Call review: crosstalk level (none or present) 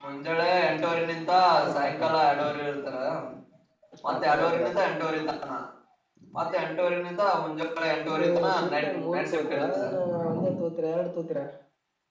present